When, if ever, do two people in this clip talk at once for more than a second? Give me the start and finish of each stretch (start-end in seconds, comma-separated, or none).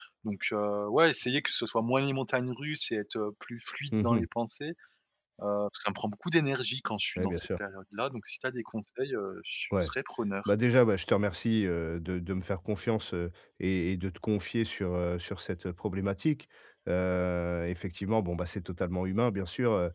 none